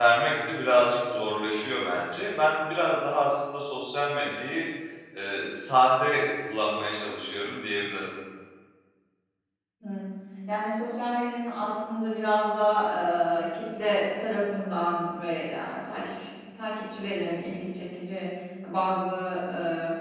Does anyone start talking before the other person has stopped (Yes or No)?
No